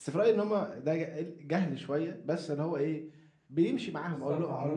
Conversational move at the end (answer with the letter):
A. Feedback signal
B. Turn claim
B